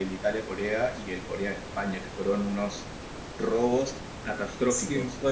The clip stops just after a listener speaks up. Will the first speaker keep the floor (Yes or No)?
No